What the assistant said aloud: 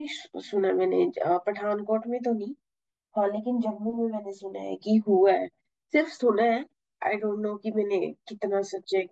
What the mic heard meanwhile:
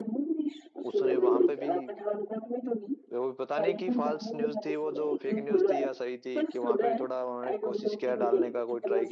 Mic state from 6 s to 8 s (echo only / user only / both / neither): both